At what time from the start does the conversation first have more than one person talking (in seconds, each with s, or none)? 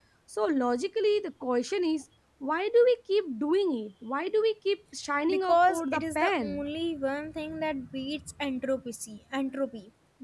5.3 s